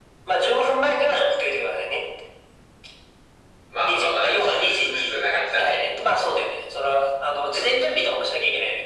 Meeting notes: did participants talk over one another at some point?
Yes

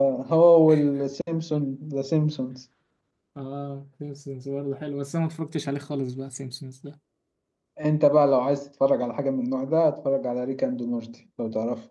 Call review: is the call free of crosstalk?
Yes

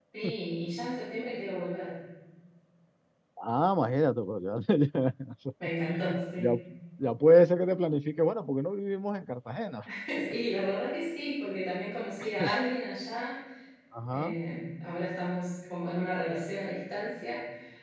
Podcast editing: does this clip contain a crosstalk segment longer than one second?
No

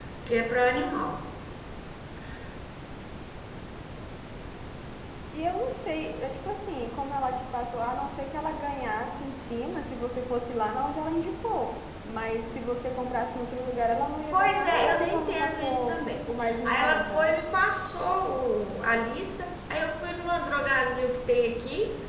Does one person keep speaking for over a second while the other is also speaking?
Yes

